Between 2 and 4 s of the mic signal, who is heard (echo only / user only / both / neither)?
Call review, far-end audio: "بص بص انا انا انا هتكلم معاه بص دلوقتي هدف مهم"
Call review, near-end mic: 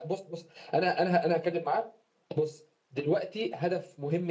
echo only